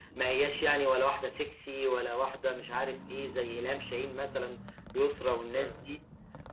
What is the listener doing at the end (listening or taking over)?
listening